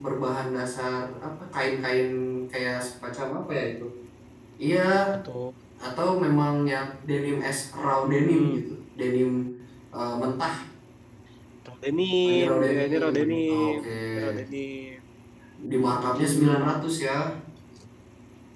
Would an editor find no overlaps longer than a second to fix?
No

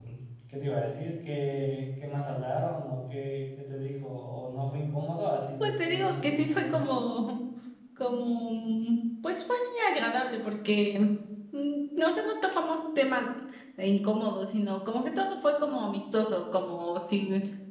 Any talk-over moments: Yes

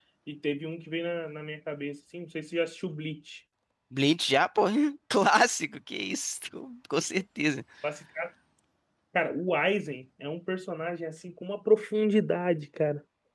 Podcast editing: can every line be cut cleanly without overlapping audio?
Yes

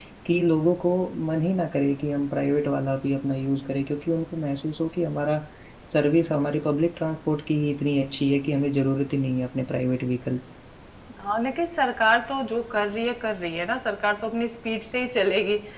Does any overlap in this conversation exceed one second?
No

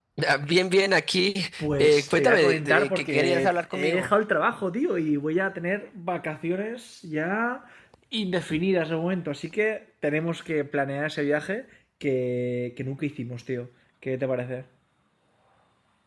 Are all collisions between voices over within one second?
No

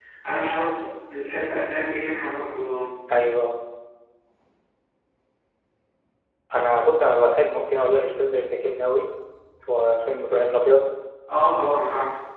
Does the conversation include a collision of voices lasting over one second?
No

